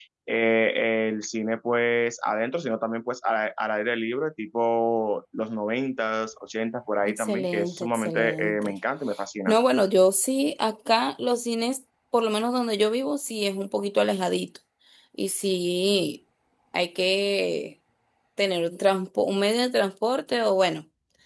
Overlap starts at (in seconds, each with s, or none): 7.0 s